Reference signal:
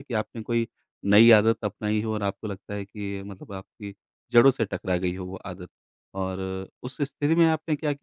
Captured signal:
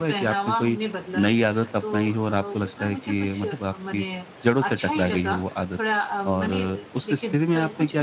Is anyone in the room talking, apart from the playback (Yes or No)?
Yes